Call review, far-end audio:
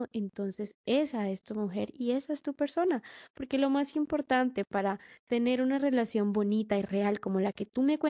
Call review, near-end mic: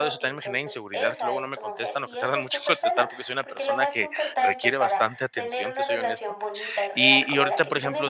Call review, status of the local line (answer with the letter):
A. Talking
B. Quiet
A